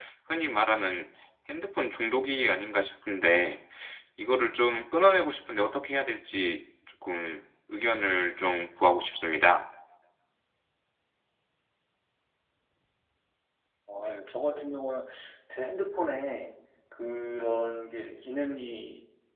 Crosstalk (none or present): none